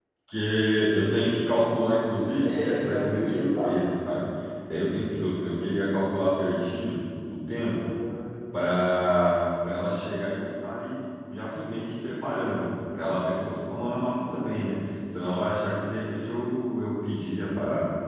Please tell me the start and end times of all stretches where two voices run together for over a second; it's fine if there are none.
2.4-3.9

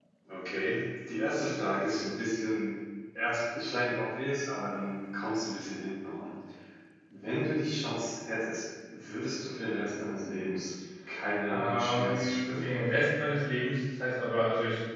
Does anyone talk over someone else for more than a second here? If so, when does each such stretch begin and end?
11.5-12.9

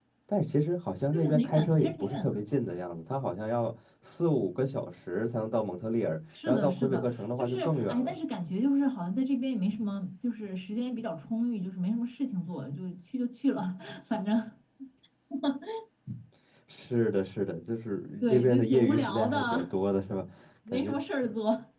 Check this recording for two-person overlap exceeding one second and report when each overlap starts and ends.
1.1-2.4, 6.5-8.2, 18.2-19.7

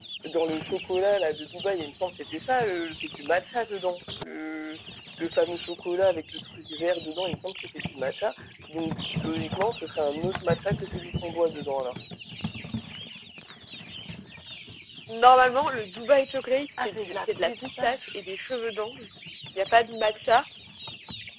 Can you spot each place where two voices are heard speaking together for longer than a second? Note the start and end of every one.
16.8-18.1

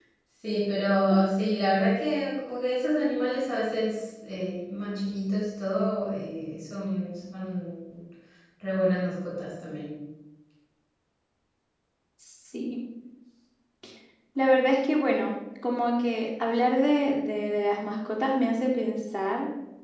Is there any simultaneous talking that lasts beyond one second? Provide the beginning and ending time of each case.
none

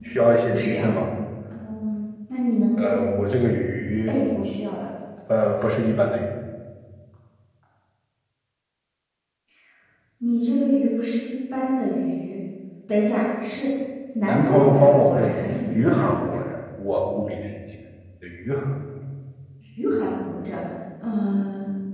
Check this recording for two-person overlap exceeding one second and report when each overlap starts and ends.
14.2-16.4

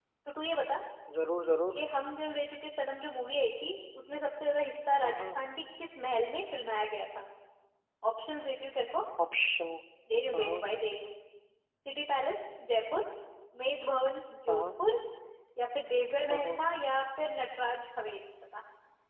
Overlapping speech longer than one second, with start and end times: none

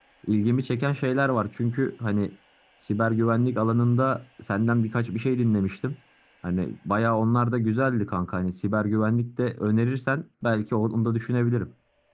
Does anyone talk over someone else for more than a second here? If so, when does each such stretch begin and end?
none

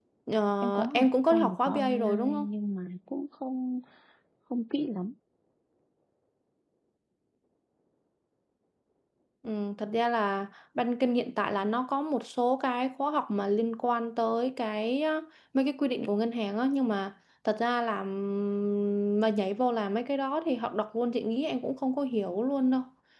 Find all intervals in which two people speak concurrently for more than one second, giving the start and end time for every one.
0.6-2.5

